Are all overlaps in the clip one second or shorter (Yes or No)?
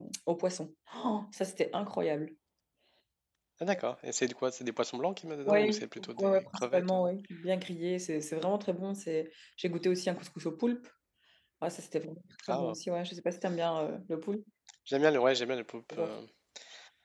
No